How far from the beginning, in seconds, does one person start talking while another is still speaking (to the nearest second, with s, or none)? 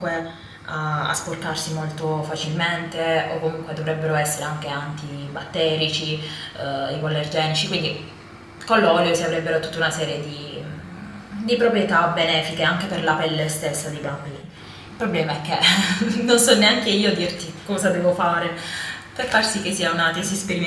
none